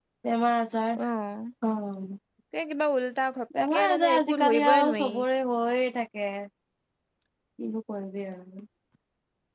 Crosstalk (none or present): present